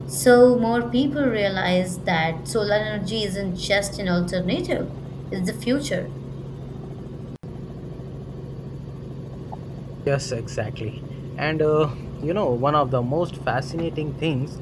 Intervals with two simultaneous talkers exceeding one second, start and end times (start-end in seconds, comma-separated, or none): none